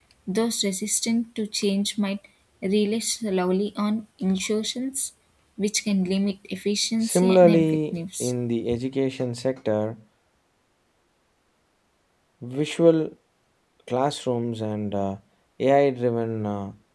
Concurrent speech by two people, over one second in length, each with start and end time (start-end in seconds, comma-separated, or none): 7.0-8.3